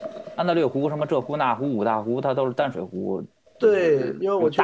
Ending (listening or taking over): taking over